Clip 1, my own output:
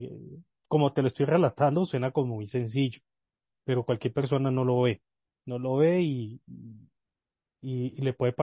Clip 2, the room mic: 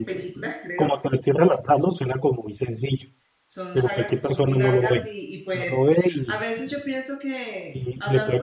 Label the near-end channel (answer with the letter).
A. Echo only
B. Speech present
B